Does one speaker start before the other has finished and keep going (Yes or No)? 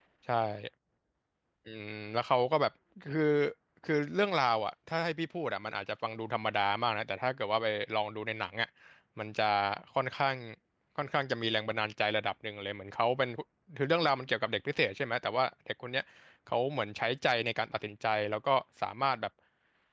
No